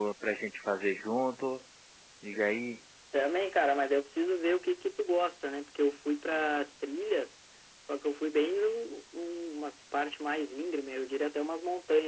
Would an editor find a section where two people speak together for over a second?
No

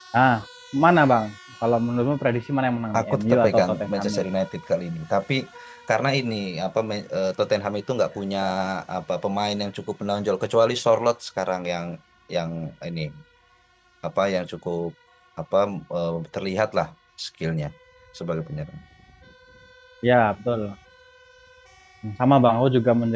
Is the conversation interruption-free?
No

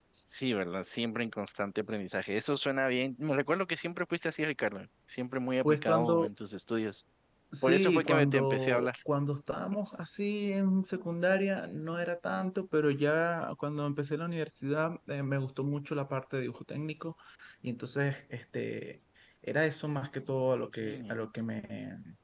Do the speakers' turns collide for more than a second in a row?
Yes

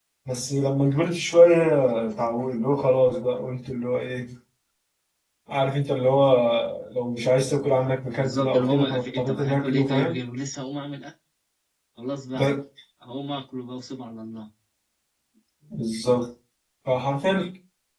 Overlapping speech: Yes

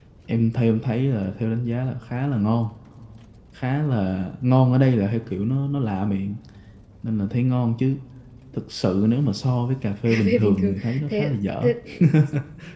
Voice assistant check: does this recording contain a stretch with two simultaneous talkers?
Yes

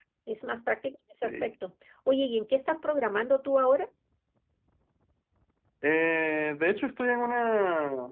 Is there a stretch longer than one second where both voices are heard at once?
No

